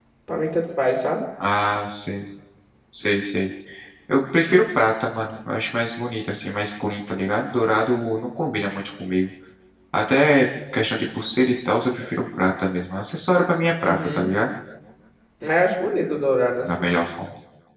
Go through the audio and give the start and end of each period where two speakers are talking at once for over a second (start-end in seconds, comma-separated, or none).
none